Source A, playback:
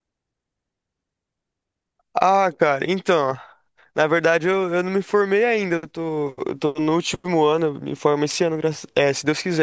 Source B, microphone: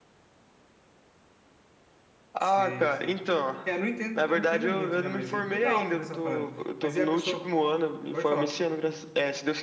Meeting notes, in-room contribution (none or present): present